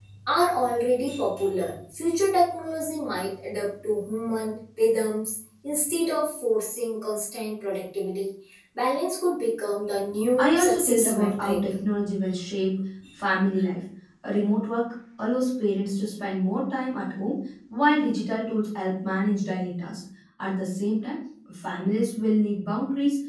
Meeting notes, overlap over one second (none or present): present